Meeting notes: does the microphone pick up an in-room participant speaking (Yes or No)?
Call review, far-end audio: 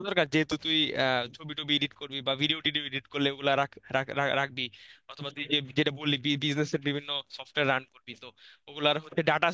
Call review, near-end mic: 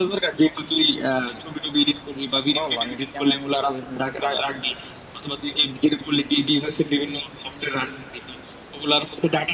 Yes